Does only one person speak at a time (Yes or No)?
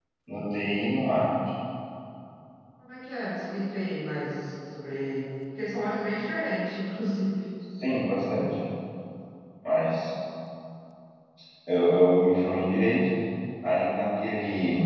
Yes